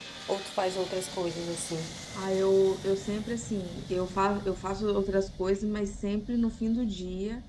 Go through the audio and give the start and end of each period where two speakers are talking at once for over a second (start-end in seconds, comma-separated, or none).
none